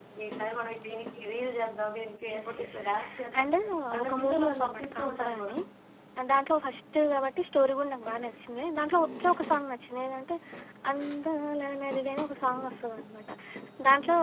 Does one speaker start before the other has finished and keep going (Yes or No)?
Yes